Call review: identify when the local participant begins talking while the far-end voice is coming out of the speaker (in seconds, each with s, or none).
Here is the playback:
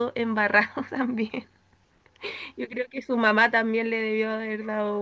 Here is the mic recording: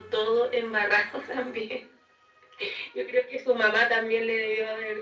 none